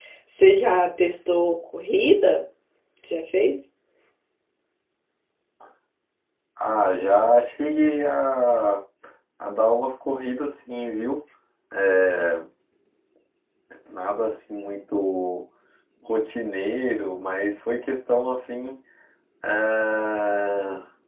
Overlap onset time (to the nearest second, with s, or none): none